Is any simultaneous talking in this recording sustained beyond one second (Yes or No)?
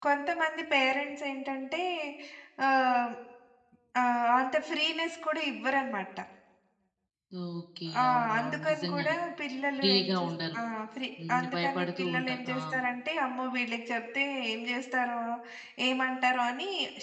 Yes